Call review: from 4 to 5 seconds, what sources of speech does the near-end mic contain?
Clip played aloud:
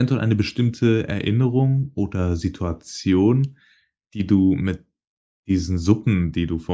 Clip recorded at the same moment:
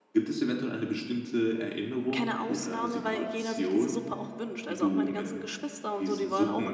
both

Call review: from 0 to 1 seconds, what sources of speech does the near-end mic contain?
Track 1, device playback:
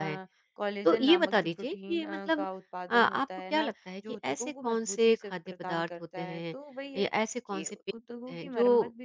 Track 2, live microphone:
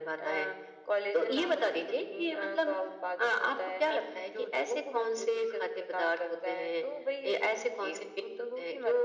echo only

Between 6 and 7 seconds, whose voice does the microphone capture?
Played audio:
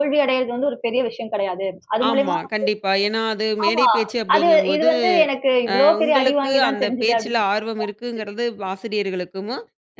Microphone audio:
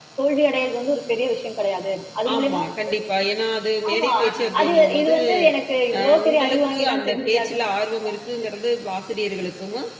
echo only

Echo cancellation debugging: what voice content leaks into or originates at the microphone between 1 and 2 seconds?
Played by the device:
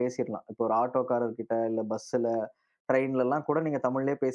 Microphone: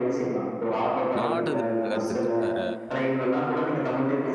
both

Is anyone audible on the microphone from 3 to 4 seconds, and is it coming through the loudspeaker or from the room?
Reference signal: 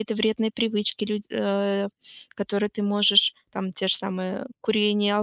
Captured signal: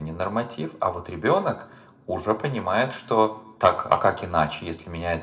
user only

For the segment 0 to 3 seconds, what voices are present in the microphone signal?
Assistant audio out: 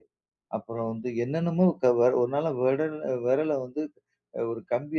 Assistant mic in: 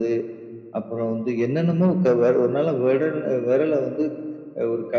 echo only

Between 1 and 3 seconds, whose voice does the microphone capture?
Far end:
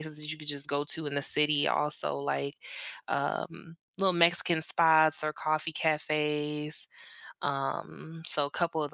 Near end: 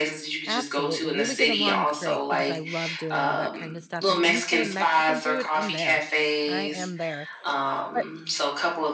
both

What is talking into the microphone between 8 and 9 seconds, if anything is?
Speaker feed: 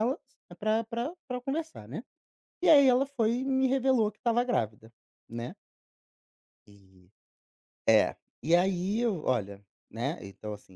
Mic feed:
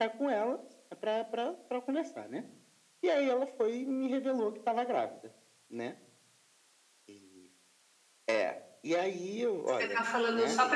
echo only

